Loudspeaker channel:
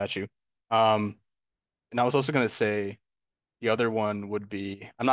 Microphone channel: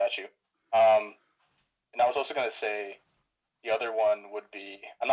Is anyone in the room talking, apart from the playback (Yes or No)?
No